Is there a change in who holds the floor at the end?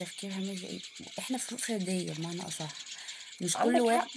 No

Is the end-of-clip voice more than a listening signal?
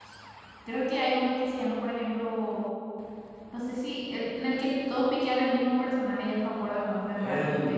Yes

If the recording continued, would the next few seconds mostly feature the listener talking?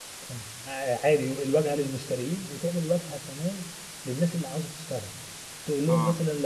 No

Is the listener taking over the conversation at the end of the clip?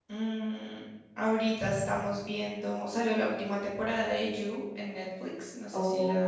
Yes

